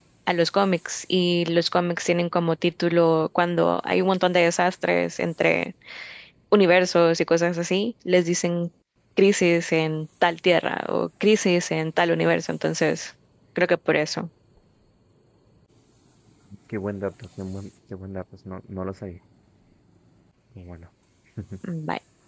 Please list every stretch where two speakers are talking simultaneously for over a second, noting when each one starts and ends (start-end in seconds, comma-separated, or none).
none